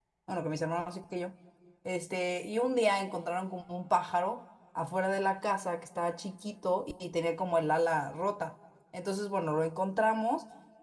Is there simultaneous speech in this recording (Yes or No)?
No